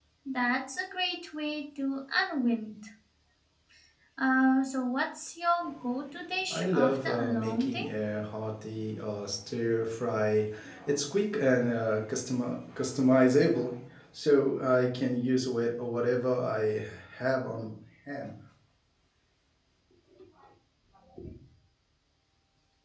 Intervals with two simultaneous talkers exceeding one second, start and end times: 6.5-7.9

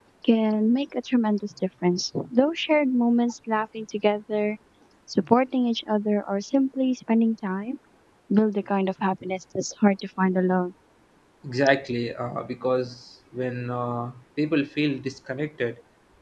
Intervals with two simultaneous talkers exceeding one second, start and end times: none

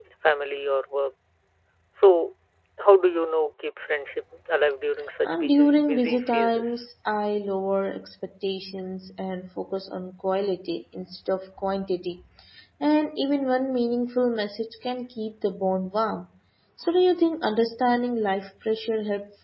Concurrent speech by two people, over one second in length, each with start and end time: 5.2-6.7

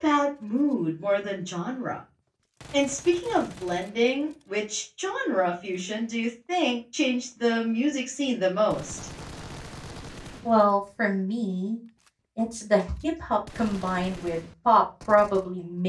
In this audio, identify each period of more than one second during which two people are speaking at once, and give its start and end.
none

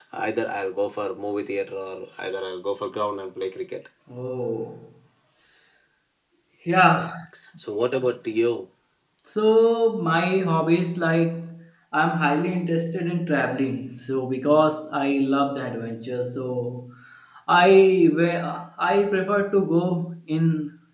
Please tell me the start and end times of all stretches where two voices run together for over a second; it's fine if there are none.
none

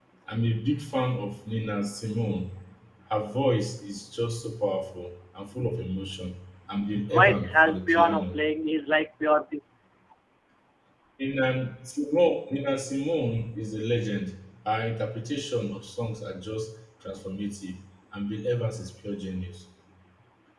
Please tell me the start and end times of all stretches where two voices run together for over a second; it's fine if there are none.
7.1-8.4

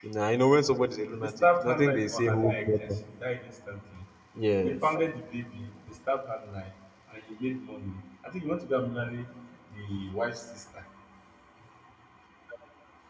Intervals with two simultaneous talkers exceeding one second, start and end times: 1.2-2.9

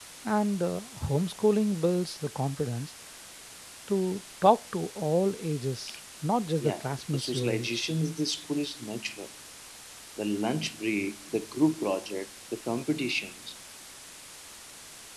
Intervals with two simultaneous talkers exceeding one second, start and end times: 6.6-7.9

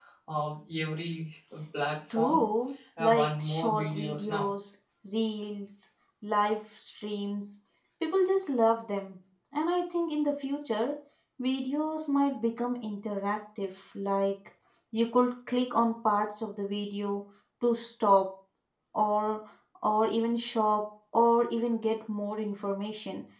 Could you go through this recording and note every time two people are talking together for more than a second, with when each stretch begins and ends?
3.0-4.5

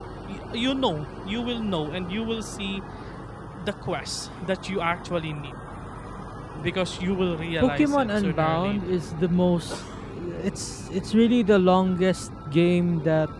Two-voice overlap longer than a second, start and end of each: 7.6-9.0

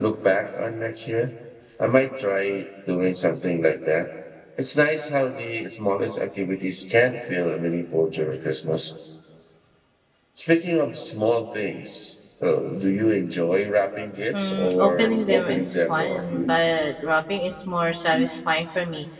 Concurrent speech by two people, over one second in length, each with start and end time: 14.4-16.2

